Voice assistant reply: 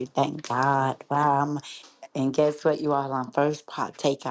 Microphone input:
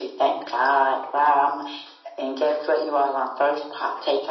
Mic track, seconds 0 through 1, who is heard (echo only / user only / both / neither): echo only